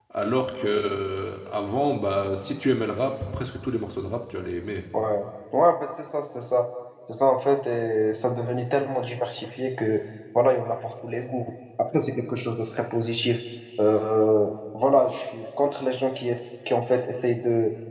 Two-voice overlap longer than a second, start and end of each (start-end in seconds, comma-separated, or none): none